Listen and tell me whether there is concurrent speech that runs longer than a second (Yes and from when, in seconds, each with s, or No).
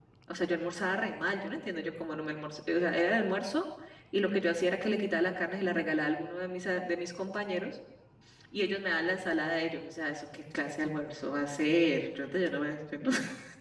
No